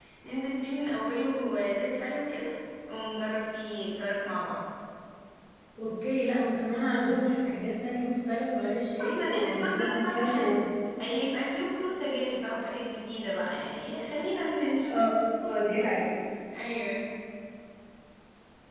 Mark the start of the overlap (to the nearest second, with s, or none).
9 s